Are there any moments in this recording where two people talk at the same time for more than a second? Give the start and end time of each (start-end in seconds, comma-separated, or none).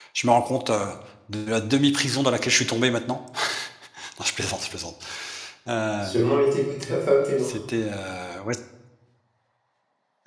none